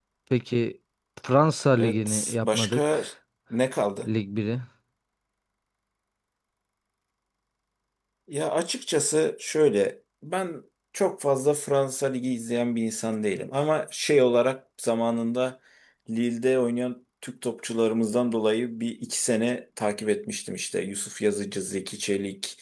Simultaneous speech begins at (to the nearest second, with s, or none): 2 s